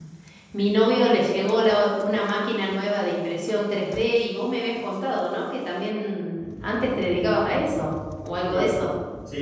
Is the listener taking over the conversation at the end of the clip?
Yes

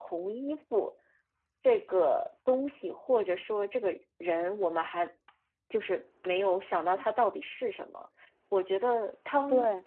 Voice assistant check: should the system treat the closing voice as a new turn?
No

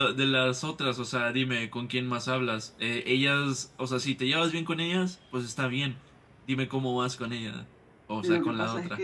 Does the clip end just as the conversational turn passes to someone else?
Yes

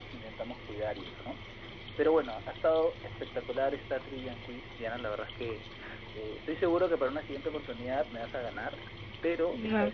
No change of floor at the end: No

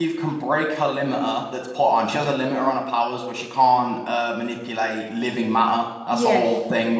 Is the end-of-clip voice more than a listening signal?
No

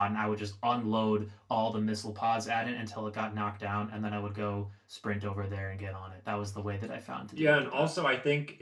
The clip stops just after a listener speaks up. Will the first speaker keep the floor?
No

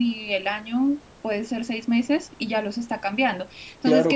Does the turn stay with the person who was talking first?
No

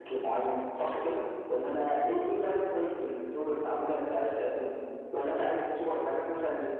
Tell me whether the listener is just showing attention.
Yes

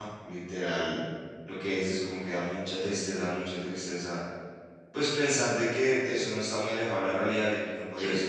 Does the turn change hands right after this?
No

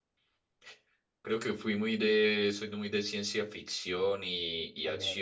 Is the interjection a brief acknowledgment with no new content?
Yes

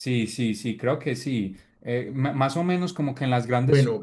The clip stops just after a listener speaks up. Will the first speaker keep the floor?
Yes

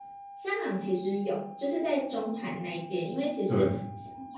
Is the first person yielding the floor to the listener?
No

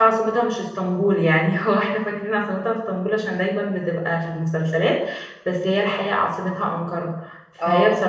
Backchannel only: Yes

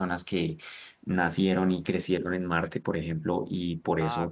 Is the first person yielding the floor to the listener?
No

